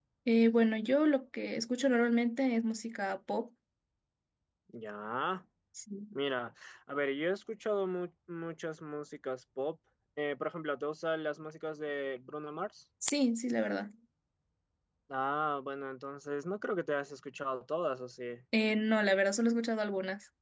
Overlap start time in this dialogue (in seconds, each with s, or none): none